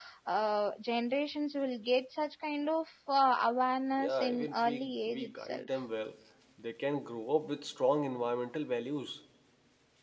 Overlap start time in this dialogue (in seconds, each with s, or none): 3.9 s